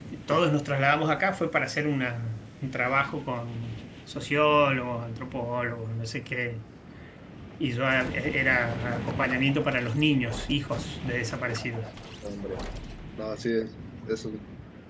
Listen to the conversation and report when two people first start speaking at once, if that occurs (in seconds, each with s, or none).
none